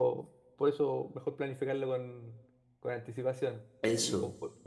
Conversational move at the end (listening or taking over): listening